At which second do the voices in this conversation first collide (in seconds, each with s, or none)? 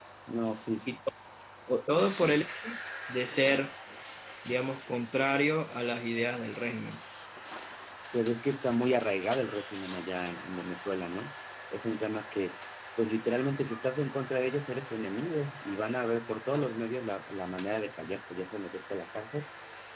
none